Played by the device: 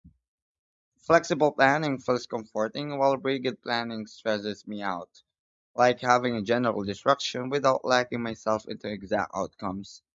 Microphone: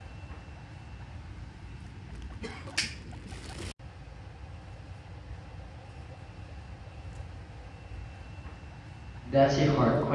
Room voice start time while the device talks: 9 s

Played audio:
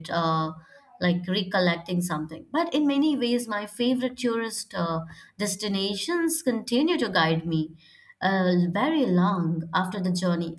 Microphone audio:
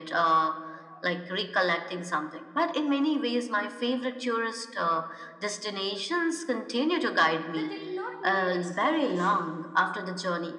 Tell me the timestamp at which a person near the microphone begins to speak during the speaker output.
8 s

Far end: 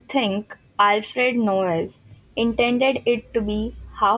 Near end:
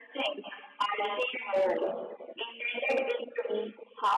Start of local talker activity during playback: none

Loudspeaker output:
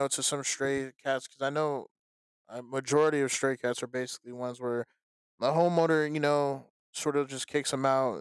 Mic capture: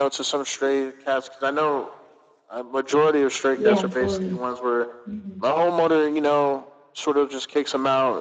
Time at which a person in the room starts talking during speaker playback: 4 s

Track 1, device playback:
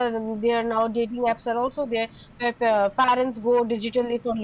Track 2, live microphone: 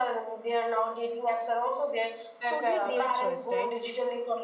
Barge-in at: 2 s

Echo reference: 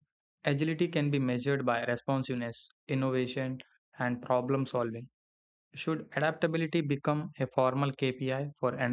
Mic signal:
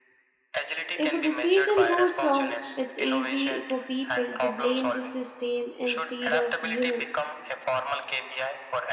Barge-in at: 1 s

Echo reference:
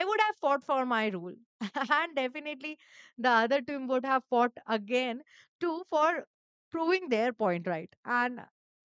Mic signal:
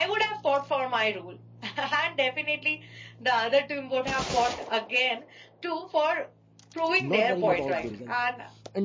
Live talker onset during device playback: 7 s

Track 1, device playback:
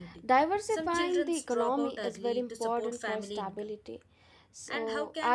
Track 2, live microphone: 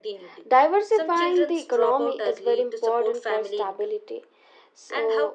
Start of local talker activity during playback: none

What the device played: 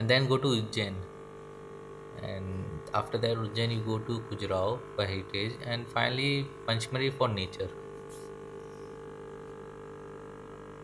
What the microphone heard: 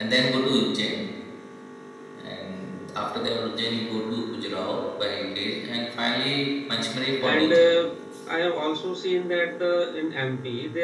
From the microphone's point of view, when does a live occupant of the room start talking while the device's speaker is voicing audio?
7 s

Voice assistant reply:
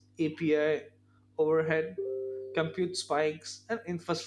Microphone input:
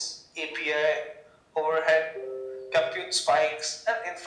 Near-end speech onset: none

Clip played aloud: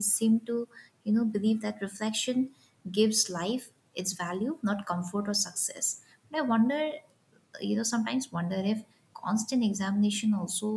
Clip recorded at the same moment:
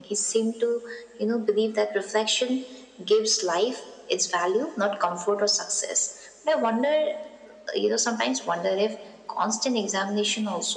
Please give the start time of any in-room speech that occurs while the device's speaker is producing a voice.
none

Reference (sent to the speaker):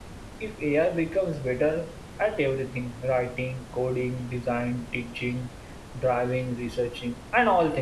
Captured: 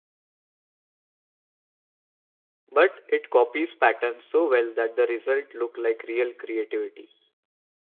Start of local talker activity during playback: 3 s

